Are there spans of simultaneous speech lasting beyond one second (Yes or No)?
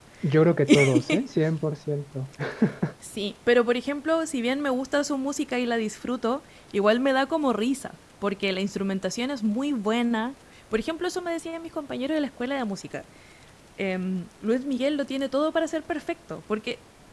No